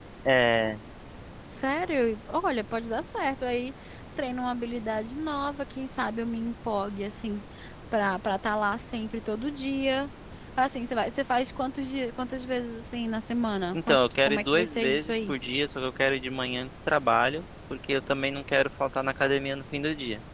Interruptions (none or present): present